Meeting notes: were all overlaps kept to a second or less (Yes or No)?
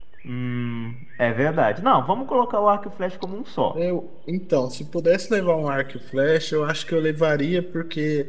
Yes